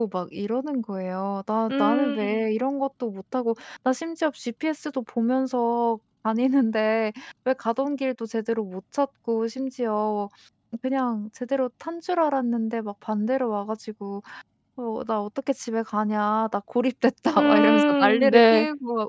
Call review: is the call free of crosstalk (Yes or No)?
No